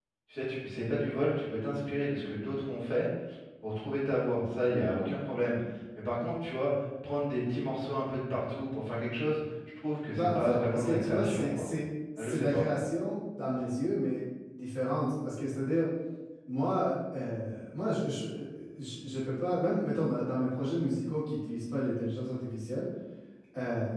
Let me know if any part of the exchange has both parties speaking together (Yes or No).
Yes